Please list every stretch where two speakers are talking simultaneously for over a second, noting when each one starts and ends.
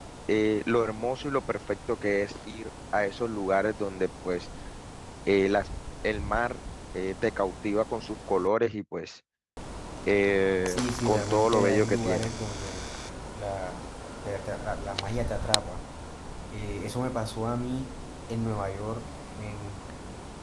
10.7-12.3

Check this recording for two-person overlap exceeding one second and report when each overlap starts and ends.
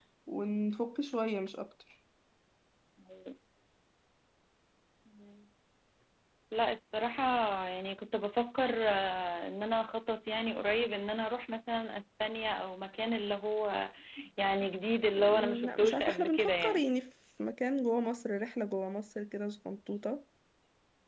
15.1-16.8

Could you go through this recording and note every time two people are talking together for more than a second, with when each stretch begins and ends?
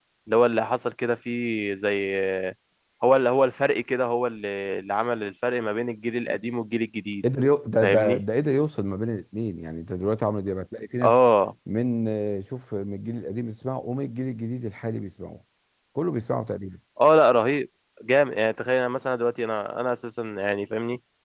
none

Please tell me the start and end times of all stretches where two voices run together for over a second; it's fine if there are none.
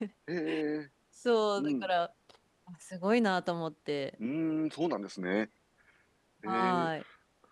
none

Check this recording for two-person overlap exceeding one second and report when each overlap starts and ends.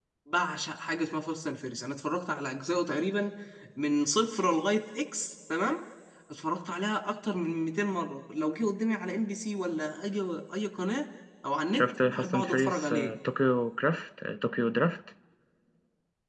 11.7-13.1

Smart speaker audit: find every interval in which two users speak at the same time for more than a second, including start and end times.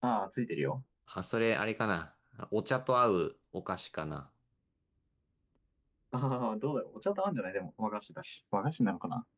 none

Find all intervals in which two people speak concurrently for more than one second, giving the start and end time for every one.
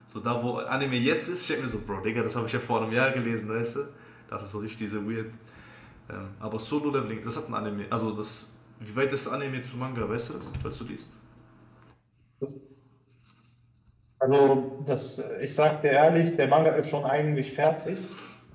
none

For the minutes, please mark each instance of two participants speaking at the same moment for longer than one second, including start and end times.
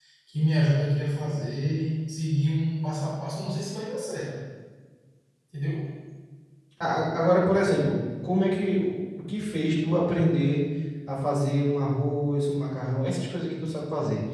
none

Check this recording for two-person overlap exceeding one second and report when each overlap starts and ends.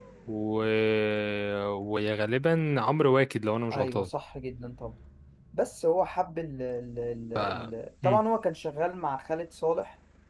none

